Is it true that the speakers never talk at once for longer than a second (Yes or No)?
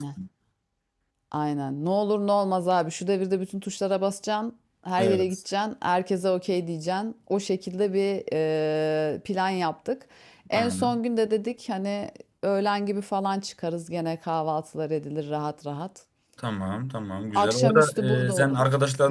No